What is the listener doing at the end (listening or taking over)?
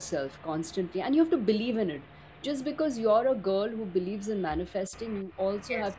listening